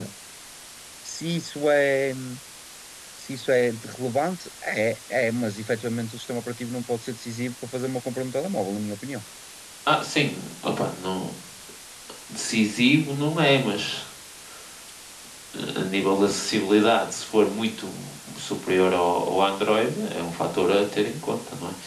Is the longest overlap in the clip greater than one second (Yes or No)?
No